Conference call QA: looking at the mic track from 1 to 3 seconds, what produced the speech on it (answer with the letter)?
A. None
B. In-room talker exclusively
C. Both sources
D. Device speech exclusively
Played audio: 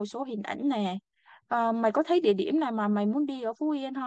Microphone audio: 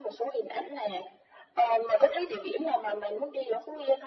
D